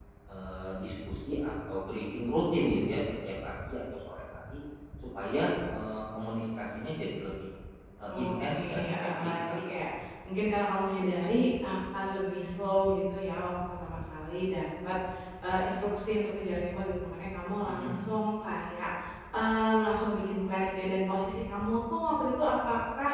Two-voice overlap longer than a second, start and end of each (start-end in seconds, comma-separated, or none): 8.1-9.6